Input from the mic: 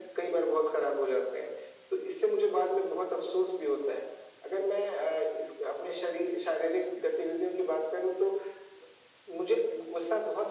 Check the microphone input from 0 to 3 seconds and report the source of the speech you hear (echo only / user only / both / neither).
echo only